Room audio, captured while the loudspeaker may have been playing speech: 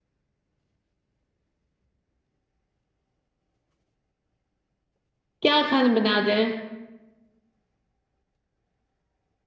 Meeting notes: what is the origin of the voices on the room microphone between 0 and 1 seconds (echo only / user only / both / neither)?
neither